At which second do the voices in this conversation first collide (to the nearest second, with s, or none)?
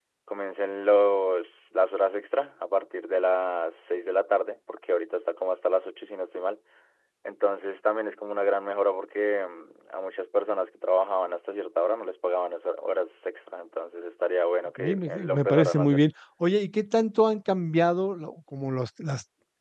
15 s